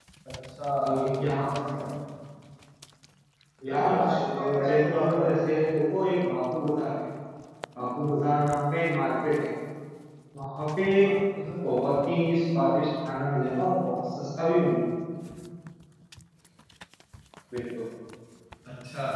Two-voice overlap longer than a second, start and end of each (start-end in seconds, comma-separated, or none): 3.7-5.3